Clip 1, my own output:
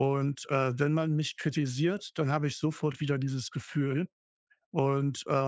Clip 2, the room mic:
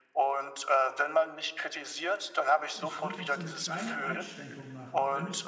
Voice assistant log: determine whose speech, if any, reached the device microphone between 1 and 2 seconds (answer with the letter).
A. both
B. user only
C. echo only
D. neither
C